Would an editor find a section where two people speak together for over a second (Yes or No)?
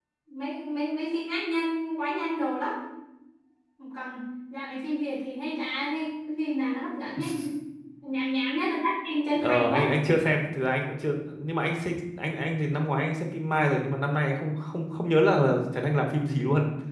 No